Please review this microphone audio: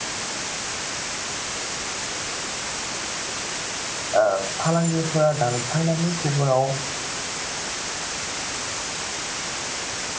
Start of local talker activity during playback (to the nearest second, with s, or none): 4 s